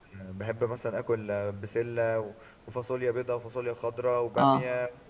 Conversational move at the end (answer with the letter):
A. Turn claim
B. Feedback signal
B